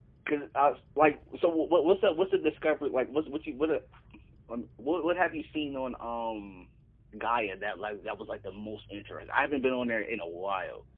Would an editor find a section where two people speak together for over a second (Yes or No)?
No